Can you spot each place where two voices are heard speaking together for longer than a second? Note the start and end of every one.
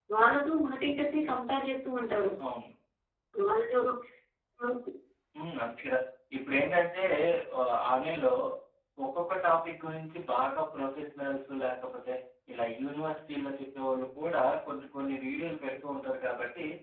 none

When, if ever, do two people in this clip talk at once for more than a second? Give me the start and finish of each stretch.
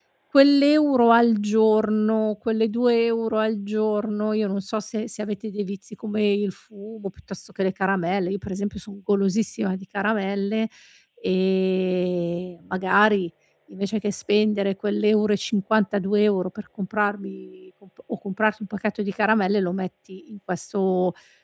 none

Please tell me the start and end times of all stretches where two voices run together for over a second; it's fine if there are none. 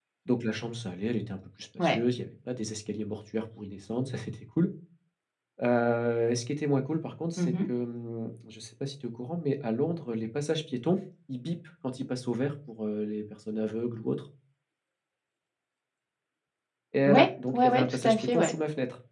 17.1-18.5

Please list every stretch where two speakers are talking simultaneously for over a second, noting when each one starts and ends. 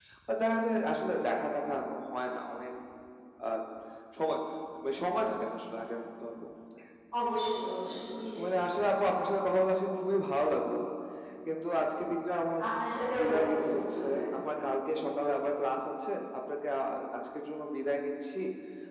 13.2-14.4

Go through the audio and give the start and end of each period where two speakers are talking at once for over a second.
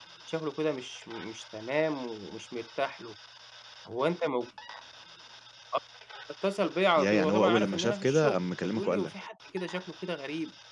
7.0-9.1

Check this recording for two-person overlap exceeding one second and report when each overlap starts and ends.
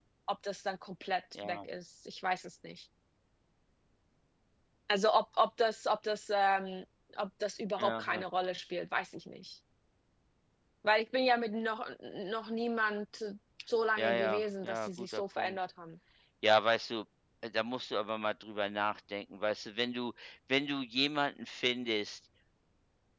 14.0-15.6

